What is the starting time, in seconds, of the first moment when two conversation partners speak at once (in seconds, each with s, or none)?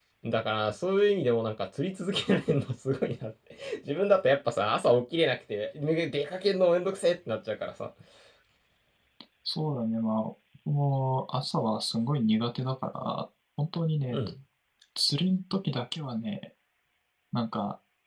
none